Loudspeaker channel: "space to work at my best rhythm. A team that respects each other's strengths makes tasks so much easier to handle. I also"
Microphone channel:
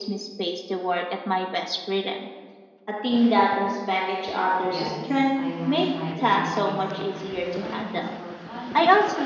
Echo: present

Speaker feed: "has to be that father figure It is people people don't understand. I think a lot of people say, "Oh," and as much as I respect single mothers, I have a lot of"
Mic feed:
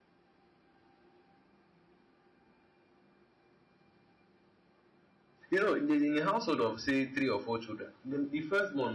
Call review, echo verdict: none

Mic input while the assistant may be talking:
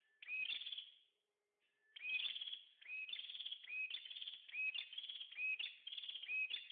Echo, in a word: none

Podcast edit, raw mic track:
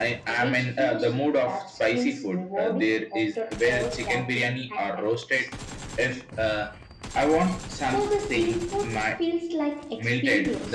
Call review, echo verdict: present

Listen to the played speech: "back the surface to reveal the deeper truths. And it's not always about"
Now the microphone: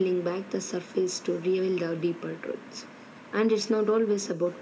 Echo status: present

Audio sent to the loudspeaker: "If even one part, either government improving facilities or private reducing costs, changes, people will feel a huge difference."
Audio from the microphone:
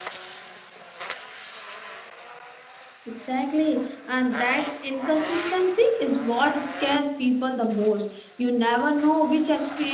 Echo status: none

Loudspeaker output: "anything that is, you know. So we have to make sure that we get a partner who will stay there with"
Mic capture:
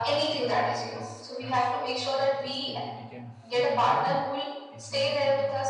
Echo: present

